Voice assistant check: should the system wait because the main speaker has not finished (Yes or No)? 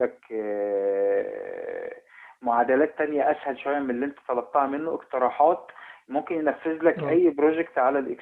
Yes